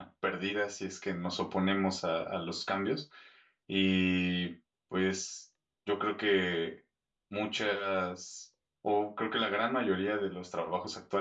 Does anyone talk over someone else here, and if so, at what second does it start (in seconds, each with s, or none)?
none